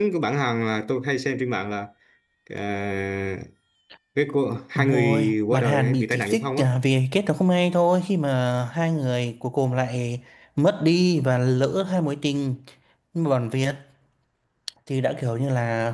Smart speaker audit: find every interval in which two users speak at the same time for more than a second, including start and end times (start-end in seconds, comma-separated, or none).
4.8-6.6